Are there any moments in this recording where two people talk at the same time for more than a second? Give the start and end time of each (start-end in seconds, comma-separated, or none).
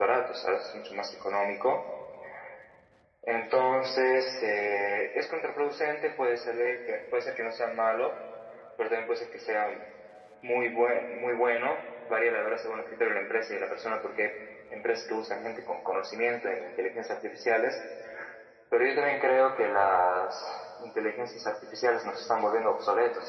none